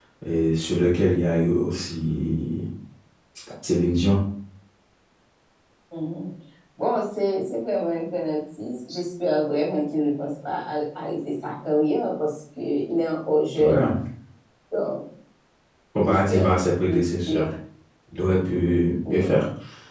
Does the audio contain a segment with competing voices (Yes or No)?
Yes